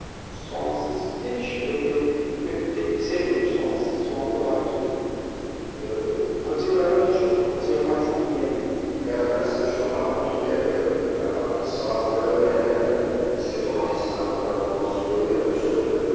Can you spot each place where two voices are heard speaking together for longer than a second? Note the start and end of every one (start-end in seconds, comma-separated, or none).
none